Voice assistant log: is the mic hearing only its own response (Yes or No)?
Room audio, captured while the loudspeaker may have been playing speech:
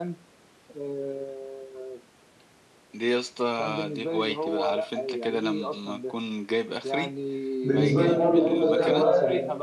No